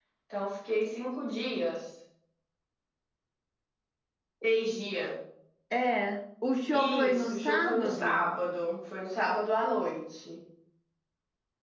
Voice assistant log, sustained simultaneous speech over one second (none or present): present